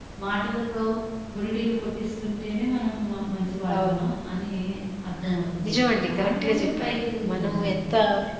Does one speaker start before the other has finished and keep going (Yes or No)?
Yes